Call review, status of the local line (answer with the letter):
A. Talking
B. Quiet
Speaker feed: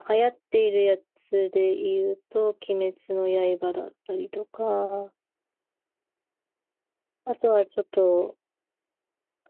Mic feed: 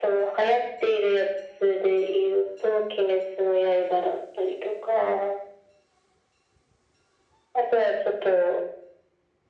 B